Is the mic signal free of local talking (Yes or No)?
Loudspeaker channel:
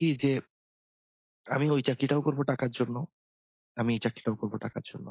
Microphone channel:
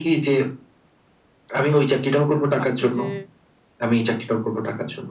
No